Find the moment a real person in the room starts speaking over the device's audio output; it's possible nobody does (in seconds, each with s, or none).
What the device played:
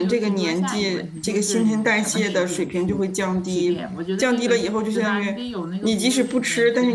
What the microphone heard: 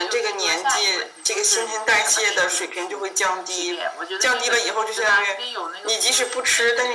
none